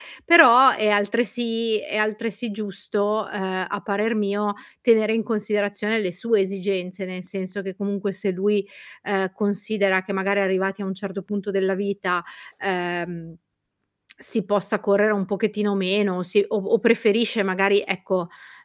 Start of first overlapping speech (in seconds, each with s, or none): none